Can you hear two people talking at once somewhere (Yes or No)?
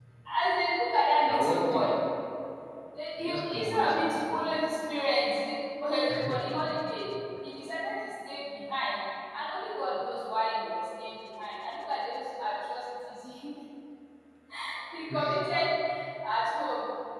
Yes